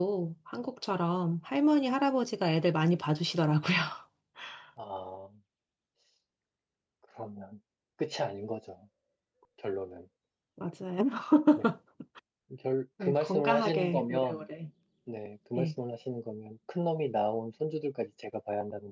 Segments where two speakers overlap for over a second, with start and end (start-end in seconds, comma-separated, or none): 13.0-14.5